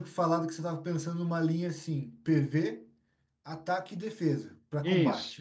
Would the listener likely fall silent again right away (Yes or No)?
No